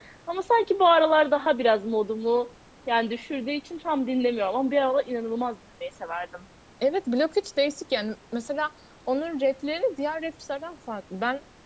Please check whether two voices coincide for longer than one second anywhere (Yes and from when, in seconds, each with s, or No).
No